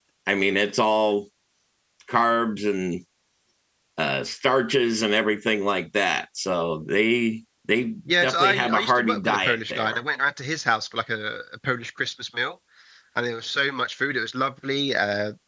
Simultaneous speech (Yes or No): Yes